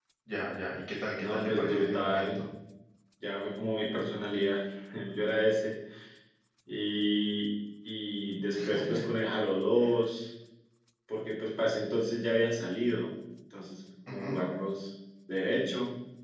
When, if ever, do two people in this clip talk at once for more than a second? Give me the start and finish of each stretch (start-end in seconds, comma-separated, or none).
1.2-2.4